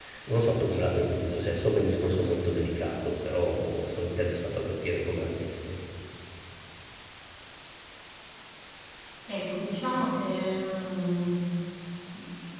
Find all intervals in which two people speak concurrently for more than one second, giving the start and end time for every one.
none

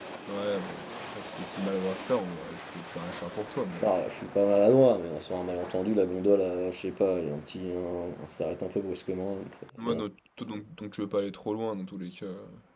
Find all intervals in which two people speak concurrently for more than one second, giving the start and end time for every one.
none

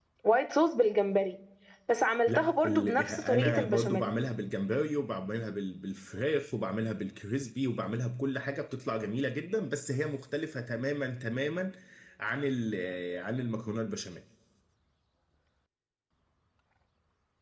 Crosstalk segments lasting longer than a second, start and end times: 2.3-4.1

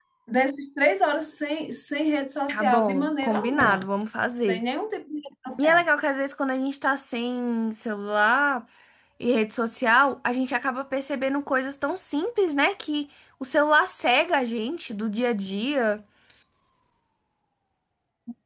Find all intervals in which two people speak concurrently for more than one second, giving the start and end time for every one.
2.5-3.8

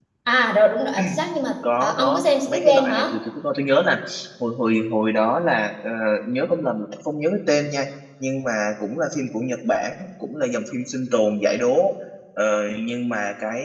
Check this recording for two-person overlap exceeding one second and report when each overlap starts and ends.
1.8-3.1

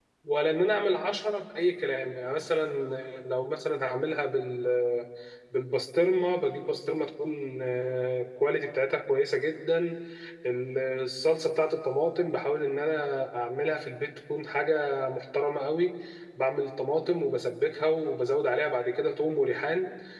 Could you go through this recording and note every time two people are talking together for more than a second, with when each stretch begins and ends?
none

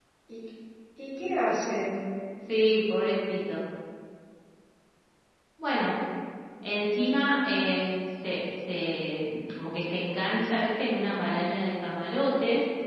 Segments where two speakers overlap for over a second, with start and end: none

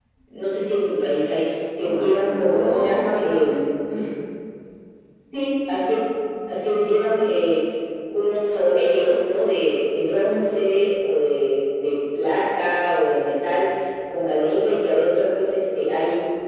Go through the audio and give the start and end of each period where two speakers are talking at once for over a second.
1.8-3.6

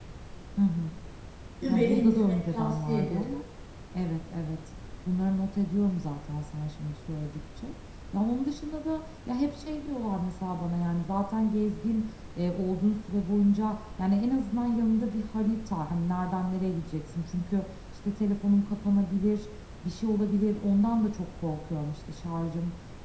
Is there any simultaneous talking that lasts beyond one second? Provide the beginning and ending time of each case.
1.7-3.4

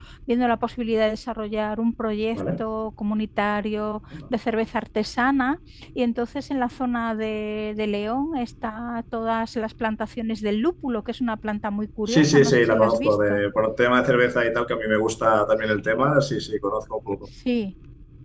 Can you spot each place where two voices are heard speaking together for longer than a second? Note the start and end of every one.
12.1-13.4

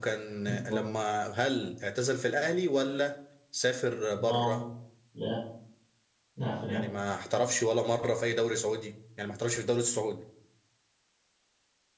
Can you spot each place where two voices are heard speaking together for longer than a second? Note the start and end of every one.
none

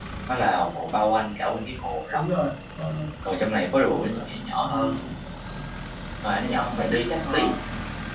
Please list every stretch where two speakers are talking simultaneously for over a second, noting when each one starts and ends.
none

